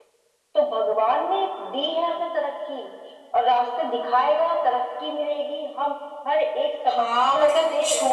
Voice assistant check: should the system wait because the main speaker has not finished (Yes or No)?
No